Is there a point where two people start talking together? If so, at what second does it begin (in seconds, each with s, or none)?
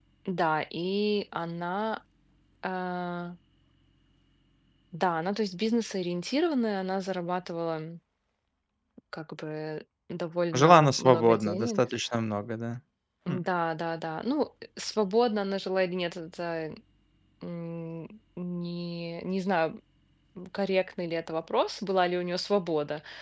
10.5 s